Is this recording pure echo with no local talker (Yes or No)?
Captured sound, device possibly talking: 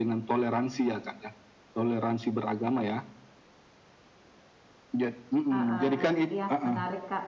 No